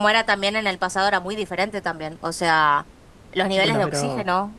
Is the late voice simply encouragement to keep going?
Yes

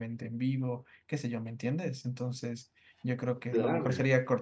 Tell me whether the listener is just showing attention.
Yes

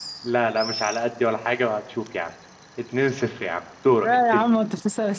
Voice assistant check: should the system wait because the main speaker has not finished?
No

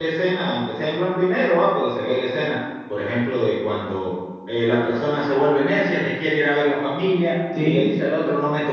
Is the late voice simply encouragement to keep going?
Yes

